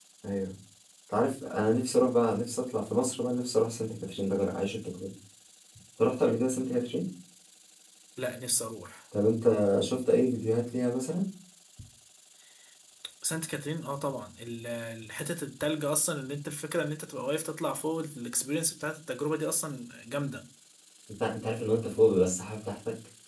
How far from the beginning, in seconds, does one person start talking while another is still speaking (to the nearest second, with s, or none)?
none